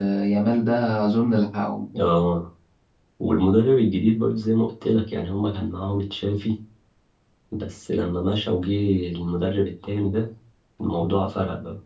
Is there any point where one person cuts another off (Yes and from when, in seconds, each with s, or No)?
No